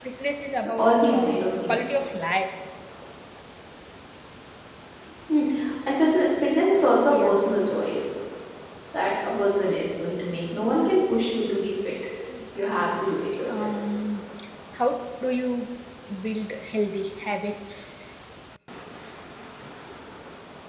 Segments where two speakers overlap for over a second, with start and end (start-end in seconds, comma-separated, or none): 0.6-1.9